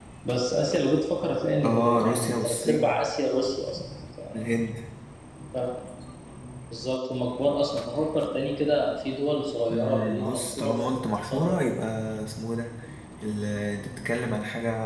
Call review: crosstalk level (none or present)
present